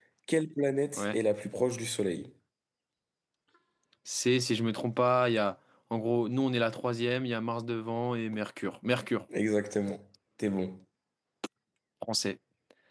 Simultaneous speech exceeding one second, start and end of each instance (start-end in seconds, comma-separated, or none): none